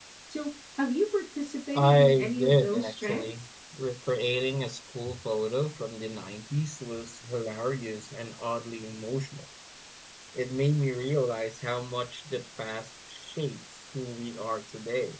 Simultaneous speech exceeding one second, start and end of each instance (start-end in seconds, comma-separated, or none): 1.7-3.3